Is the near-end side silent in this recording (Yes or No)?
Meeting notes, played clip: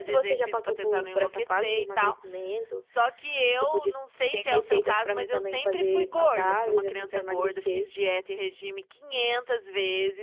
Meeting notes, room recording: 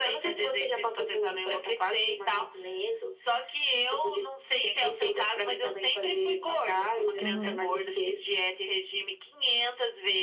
No